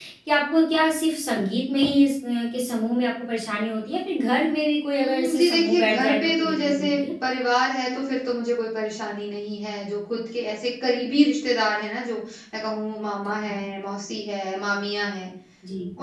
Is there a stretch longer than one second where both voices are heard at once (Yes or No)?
Yes